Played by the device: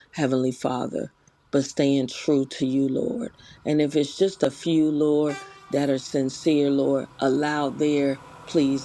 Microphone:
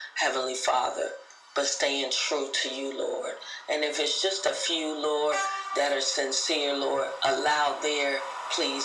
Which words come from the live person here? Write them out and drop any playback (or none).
none